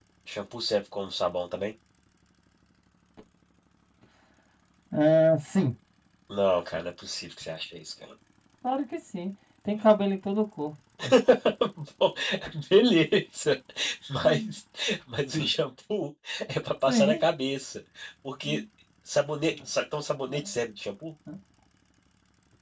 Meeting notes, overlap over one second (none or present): none